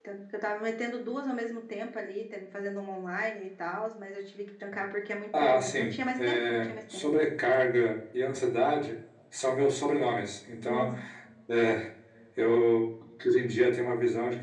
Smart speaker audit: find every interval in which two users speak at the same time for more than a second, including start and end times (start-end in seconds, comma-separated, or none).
5.4-7.0